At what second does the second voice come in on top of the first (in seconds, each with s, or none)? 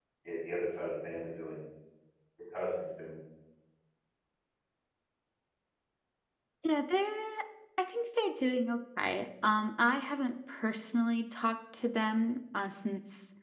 none